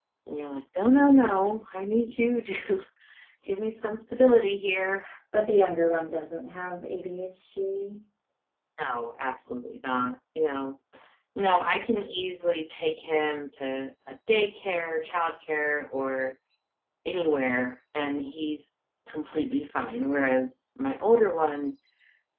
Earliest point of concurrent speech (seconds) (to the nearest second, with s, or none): none